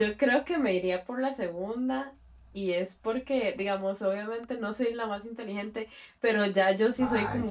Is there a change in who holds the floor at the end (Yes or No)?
No